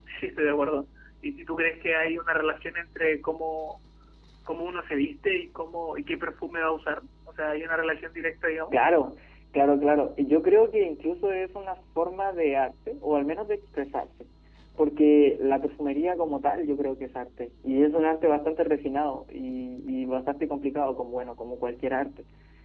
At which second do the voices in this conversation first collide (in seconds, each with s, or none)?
none